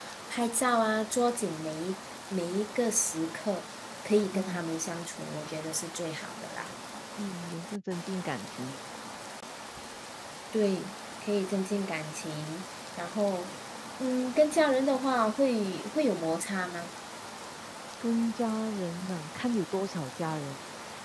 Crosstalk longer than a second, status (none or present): none